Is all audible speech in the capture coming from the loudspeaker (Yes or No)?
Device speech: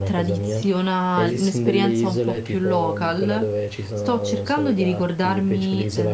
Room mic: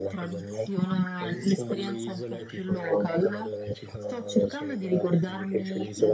Yes